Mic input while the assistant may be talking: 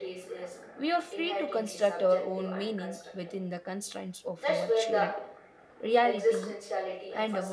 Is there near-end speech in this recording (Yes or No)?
Yes